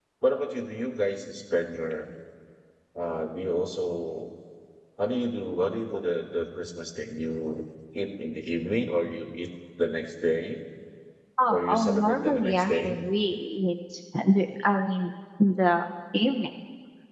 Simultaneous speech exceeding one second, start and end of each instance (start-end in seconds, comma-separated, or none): 11.5-13.0